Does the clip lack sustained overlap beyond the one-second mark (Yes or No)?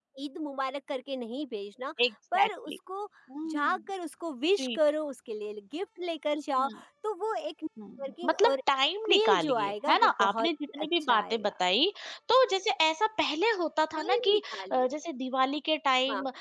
No